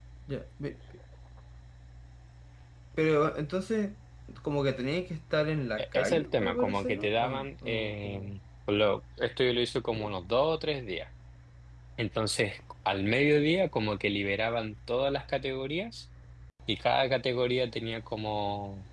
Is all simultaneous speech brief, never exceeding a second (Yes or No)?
No